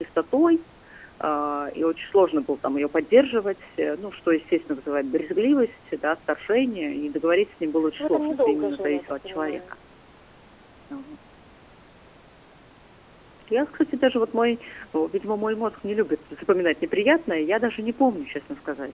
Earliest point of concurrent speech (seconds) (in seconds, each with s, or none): 8.0 s